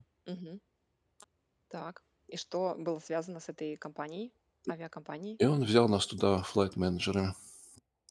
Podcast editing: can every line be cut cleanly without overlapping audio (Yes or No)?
Yes